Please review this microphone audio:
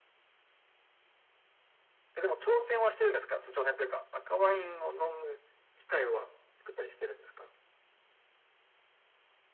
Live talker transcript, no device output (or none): none